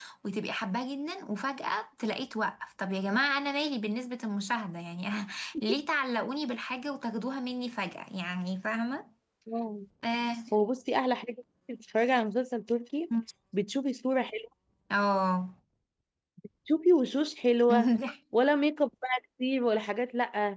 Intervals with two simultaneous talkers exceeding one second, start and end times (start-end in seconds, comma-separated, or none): none